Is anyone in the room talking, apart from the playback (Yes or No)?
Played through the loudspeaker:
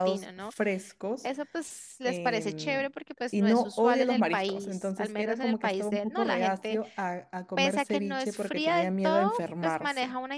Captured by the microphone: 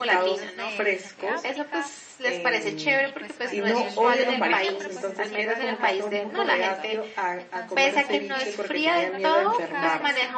Yes